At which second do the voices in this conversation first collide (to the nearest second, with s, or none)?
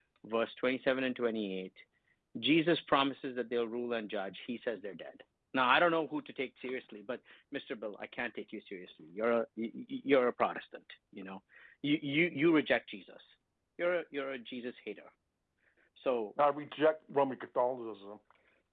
none